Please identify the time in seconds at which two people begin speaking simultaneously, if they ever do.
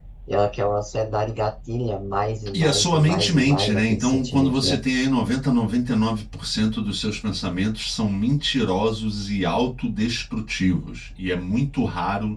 2.5 s

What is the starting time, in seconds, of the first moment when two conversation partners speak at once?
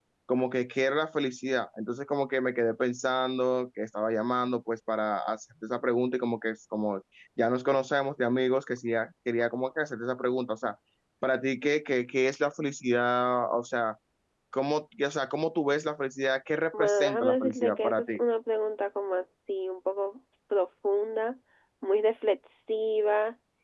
16.7 s

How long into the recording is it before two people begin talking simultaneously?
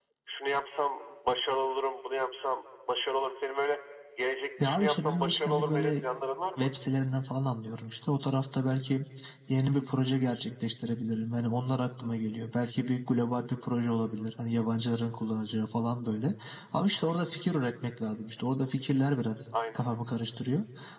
4.6 s

